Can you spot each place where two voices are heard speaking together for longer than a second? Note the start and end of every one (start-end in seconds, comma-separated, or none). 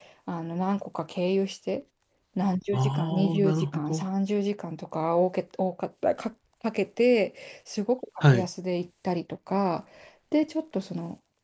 2.7-4.0